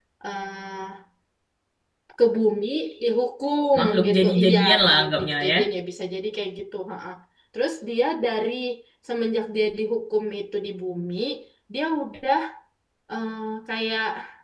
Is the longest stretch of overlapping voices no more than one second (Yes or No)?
No